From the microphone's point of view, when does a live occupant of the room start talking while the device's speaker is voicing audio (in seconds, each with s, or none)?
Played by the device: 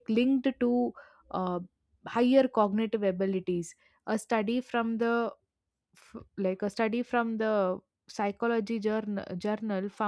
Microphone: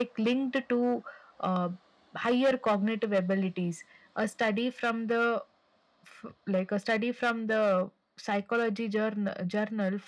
none